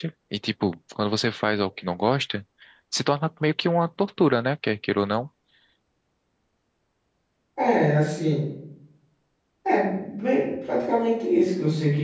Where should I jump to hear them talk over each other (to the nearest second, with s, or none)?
none